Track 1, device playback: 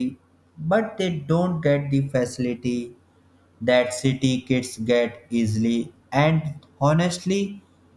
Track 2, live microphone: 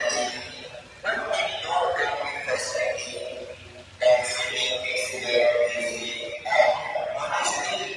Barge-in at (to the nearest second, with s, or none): none